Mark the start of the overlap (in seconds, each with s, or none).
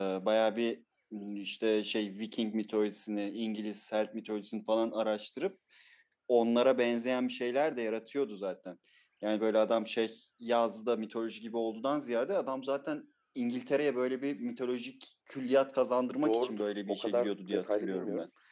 16.2 s